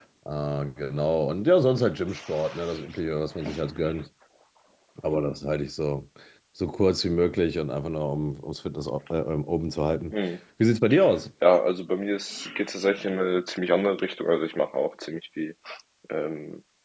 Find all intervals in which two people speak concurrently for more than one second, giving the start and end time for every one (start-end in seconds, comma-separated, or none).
none